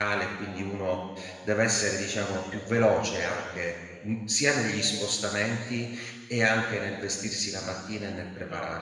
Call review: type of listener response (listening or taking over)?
taking over